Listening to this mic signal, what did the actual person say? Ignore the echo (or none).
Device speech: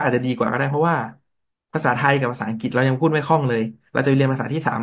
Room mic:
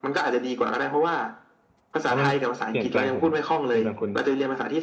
แล้วมันเปลี่ยนแปลงผมเปลี่ยนแปลงคุณ